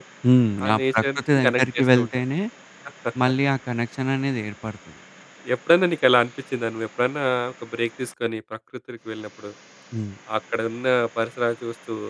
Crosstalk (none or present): present